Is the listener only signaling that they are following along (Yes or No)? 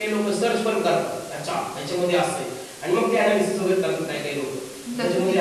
Yes